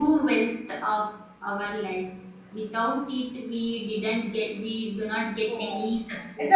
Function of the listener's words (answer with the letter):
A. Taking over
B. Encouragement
A